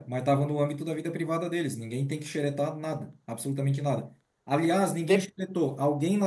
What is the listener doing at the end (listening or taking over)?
listening